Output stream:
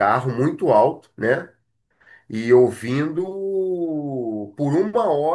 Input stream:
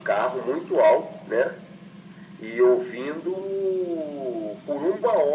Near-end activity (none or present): none